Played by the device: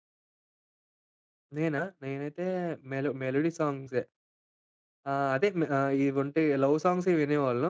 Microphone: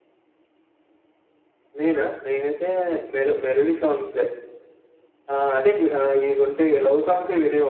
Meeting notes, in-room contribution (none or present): none